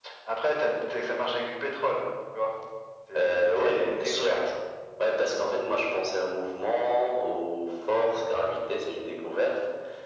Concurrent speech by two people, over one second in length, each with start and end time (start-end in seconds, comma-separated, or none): 3.1-4.5